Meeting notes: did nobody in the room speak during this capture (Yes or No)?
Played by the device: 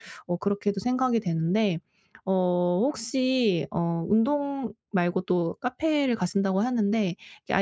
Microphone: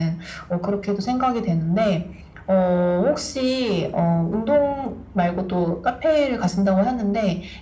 Yes